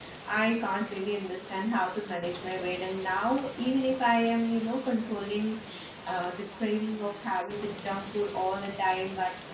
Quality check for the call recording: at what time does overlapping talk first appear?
none

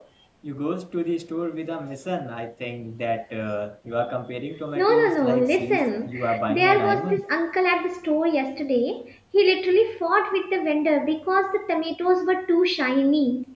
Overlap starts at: 5 s

